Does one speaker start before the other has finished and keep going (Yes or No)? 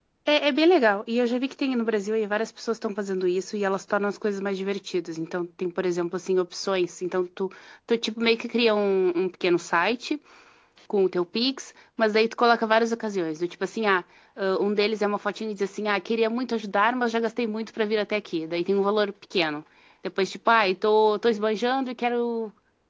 No